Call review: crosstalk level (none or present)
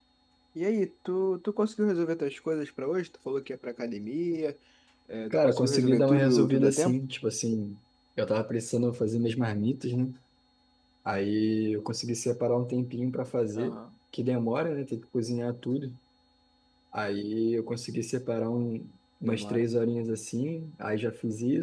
present